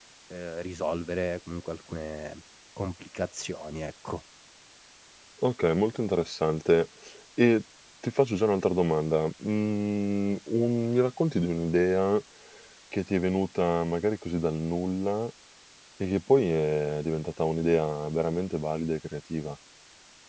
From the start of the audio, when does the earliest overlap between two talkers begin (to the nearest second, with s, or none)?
none